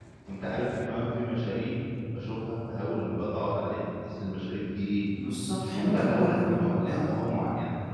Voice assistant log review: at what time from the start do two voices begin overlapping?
5.6 s

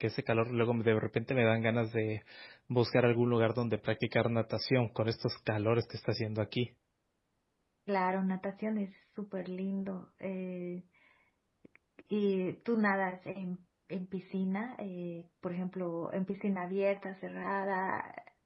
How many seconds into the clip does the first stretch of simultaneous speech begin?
none

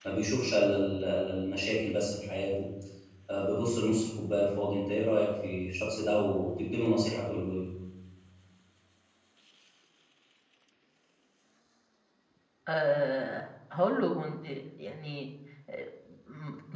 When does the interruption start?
none

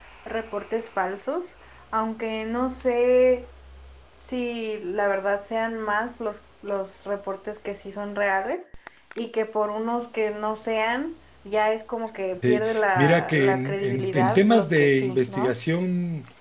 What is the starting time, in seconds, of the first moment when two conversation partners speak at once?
12.3 s

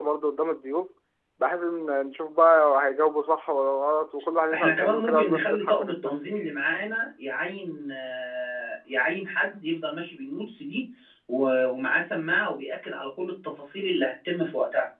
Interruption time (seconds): 4.5 s

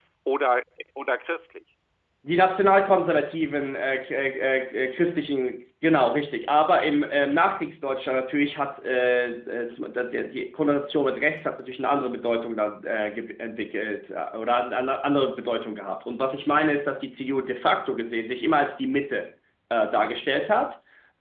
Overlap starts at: none

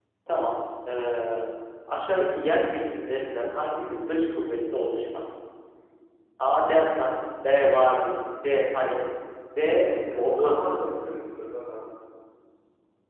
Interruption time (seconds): 9.6 s

